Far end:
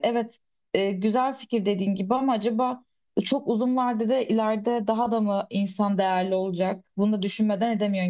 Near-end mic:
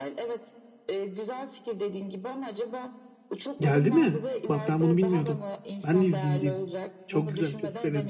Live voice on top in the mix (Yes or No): Yes